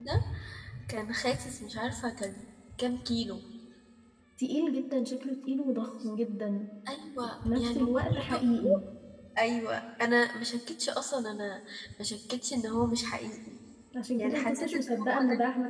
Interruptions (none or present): present